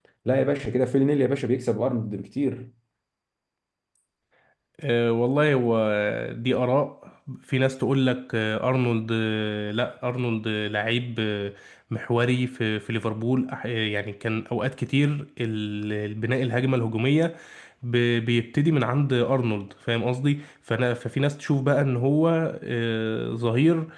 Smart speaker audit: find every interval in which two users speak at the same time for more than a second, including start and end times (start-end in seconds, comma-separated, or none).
none